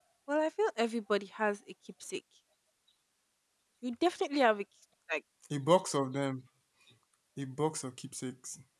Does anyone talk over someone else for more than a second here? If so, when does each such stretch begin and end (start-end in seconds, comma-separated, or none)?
none